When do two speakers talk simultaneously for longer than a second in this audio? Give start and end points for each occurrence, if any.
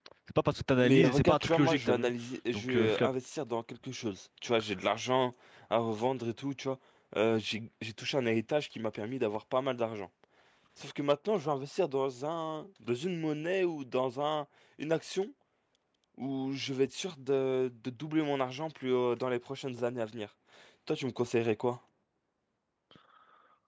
0.8-2.1

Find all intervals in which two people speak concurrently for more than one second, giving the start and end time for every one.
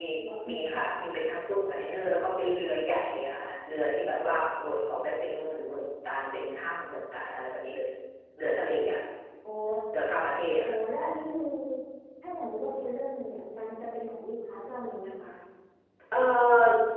none

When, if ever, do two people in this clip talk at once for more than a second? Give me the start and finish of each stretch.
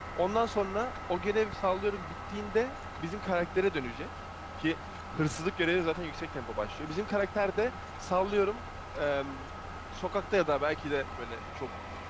none

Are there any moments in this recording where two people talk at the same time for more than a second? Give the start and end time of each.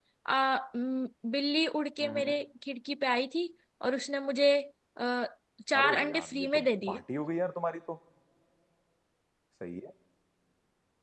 5.8-7.0

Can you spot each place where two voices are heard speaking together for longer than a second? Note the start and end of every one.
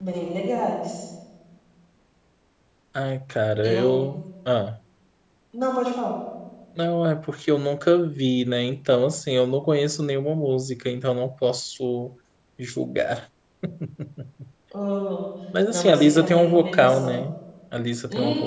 15.7-17.2

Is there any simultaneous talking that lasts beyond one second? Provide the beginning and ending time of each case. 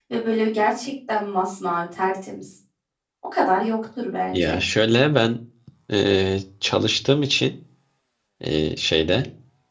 none

